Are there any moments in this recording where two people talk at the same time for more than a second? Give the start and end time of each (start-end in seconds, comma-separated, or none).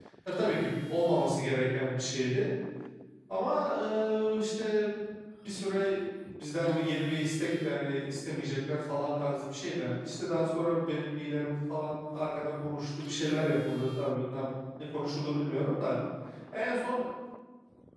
none